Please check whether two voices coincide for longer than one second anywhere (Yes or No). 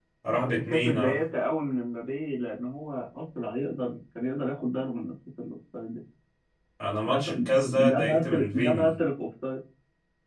Yes